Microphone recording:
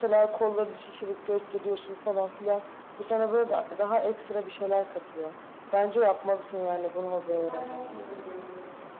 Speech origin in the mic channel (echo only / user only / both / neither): both